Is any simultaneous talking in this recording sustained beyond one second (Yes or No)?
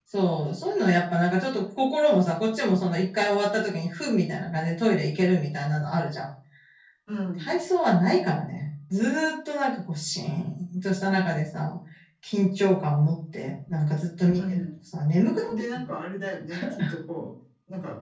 No